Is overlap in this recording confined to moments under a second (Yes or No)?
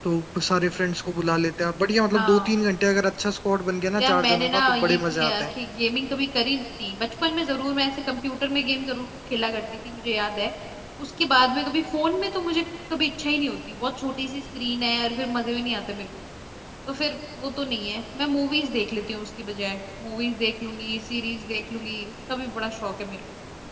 No